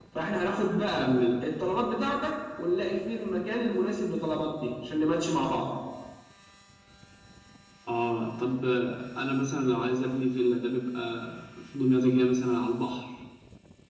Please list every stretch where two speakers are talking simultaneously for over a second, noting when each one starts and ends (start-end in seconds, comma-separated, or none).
none